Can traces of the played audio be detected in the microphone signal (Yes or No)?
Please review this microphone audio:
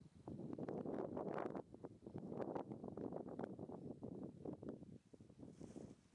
No